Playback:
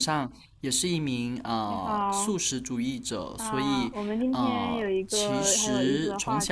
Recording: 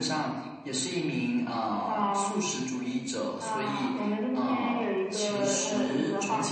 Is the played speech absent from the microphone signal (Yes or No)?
No